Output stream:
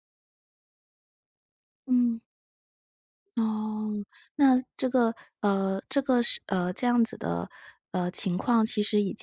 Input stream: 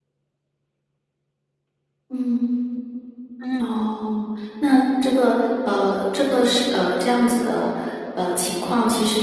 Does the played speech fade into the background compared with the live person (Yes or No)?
No